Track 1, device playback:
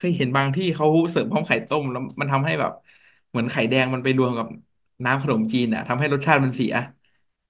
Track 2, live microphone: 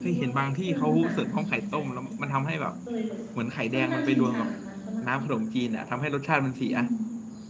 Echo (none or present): present